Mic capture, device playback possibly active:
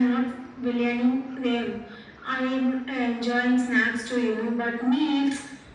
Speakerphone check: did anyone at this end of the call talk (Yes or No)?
No